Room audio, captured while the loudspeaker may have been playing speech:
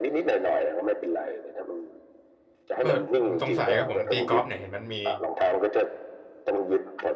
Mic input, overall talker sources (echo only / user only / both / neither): both